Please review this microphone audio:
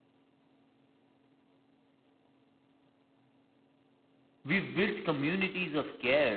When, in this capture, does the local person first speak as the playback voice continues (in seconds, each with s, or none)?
4.4 s